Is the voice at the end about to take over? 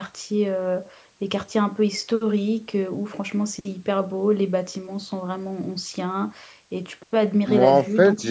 Yes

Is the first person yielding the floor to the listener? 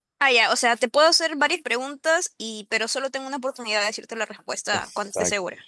Yes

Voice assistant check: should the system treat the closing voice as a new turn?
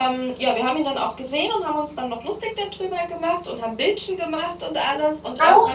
Yes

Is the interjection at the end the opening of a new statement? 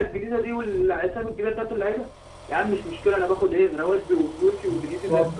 Yes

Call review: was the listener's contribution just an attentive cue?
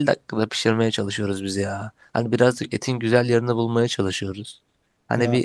Yes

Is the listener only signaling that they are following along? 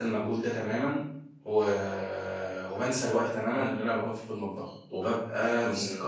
Yes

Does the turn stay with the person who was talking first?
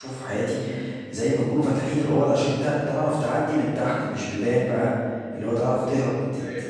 Yes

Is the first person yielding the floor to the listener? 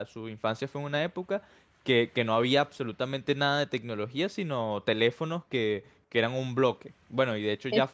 No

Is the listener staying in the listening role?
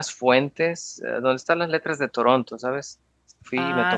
No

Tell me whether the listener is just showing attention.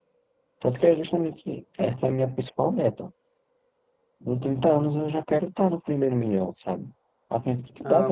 No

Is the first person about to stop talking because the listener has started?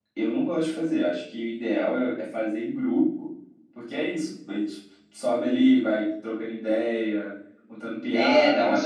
Yes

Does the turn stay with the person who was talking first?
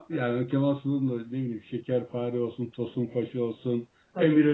Yes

